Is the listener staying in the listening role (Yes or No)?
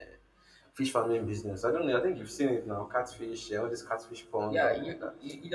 No